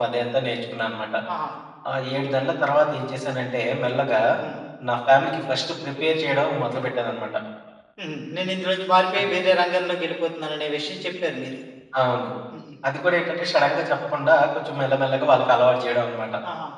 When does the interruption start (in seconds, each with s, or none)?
none